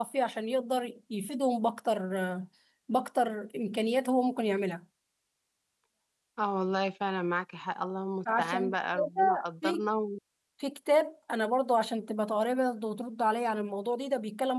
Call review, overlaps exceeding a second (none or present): present